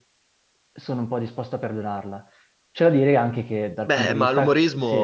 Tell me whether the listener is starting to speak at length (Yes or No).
Yes